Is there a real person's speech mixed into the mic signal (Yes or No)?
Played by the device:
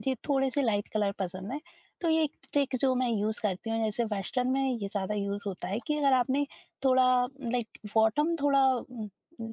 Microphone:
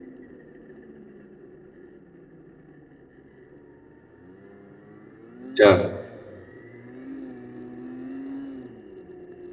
Yes